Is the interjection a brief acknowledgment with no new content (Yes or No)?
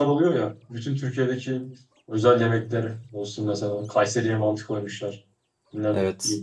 Yes